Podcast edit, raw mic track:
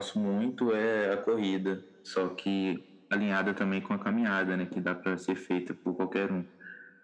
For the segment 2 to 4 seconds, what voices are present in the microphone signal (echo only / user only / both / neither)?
echo only